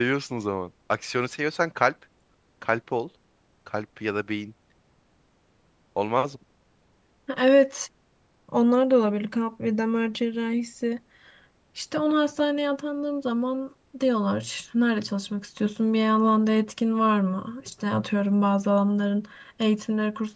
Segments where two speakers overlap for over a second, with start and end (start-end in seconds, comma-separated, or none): none